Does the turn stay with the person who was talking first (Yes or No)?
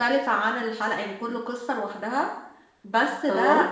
Yes